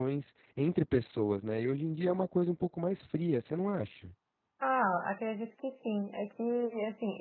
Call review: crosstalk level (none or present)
none